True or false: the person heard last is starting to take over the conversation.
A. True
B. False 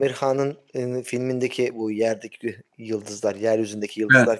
B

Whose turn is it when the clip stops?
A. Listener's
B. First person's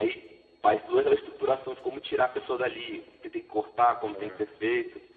B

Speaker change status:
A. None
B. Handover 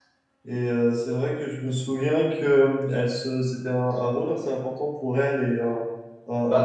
B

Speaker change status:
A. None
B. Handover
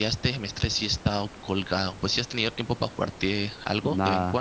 B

